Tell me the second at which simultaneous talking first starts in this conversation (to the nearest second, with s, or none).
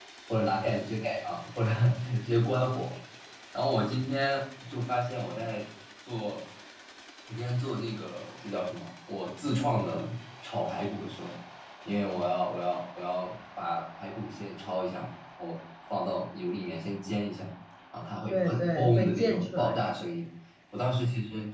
18 s